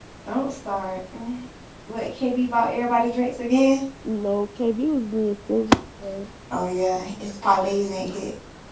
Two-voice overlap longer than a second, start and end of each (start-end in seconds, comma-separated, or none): none